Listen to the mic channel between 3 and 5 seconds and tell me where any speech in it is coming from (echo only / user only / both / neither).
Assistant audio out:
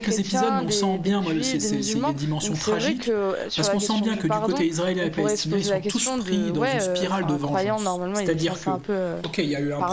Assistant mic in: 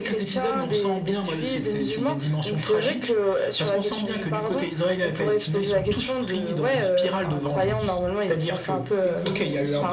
echo only